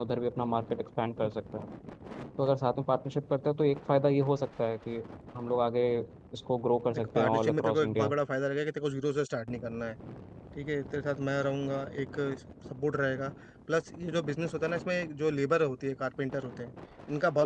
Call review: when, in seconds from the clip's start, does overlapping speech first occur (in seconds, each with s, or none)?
6.9 s